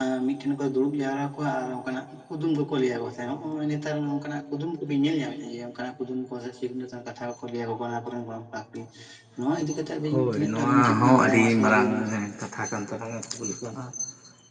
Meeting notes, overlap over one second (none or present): present